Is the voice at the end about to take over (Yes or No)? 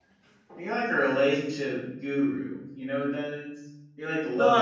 Yes